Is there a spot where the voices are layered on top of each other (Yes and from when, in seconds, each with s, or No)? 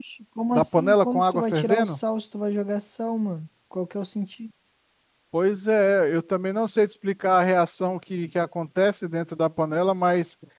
Yes, from 0.5 s